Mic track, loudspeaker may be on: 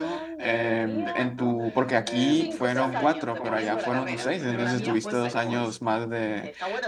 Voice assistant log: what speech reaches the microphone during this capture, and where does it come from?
both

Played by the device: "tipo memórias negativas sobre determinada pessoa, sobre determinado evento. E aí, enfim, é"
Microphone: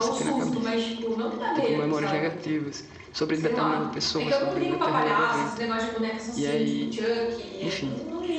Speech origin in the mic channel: both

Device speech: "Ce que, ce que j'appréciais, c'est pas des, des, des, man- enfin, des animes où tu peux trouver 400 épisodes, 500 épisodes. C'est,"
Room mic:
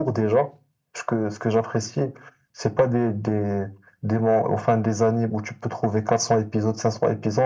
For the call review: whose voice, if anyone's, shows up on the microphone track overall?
echo only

